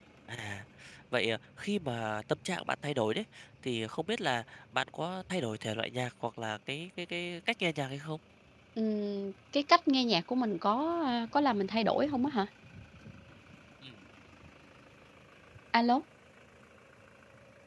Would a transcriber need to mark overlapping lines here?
No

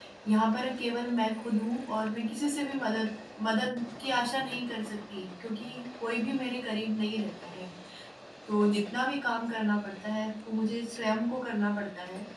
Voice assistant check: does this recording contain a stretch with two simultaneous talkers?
No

